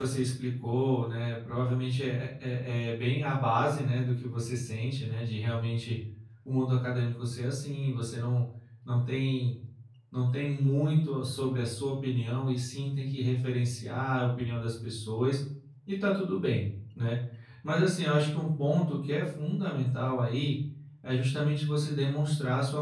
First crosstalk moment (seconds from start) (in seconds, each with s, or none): none